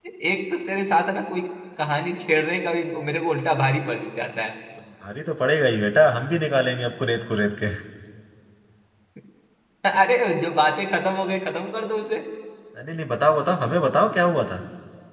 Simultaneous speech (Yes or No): No